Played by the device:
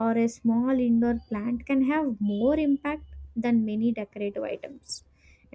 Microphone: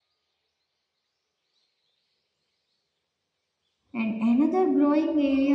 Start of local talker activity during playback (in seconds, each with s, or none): 3.9 s